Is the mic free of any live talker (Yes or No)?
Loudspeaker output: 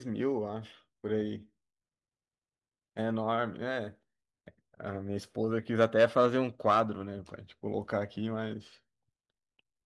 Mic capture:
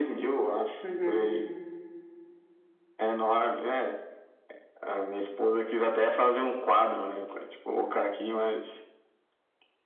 No